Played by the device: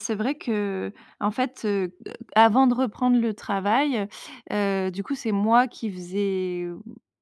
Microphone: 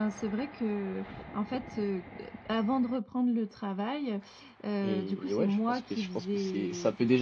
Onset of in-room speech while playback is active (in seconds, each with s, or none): 4.8 s